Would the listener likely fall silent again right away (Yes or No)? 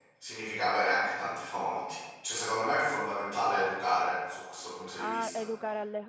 No